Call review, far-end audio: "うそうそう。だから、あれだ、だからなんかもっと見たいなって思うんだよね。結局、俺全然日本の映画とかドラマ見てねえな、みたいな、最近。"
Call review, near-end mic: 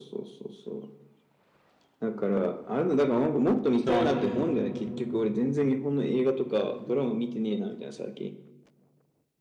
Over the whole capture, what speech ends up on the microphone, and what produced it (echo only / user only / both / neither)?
both